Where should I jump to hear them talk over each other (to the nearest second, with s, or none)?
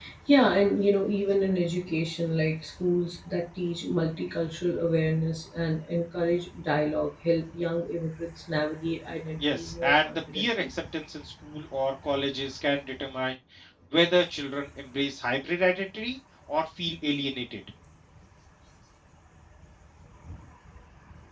9 s